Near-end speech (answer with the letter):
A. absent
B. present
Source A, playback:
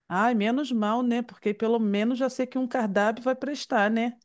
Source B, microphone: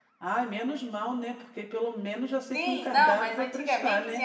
B